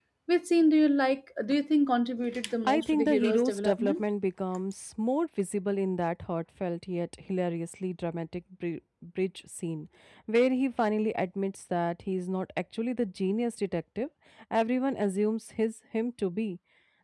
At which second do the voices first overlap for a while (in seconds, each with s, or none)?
2.6 s